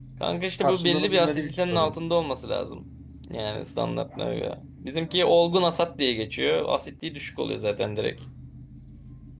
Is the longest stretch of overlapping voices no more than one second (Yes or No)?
No